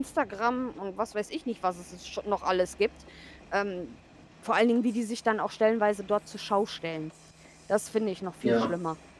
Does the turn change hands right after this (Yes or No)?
Yes